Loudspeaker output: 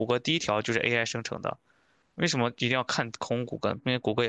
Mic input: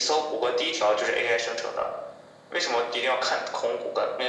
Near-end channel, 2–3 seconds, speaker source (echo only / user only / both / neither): echo only